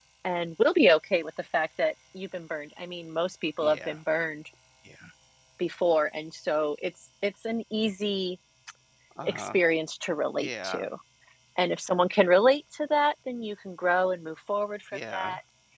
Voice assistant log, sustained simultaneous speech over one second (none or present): none